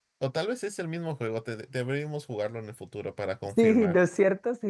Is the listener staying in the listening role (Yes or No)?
No